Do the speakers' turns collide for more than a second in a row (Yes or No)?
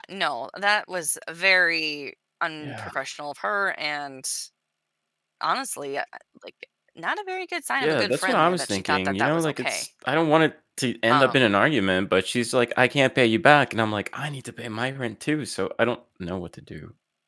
Yes